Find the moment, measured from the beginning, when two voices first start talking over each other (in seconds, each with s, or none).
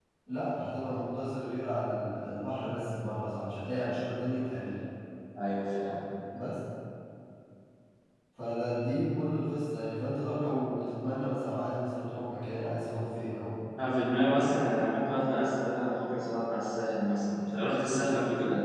none